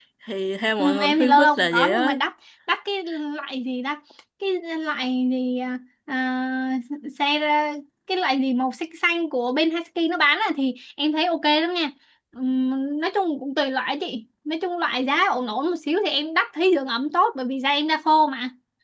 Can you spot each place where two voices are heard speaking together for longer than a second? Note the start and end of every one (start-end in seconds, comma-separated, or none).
0.8-2.1